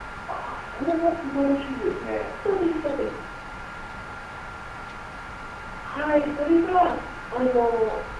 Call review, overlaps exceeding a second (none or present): none